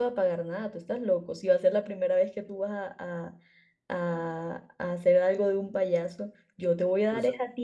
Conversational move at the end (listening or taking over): listening